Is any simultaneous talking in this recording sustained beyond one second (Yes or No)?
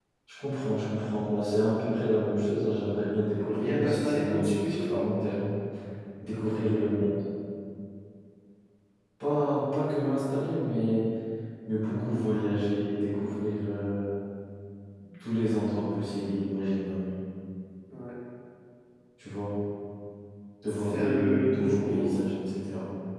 Yes